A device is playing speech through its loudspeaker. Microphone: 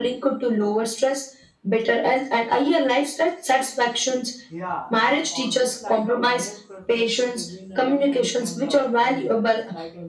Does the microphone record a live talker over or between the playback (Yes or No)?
Yes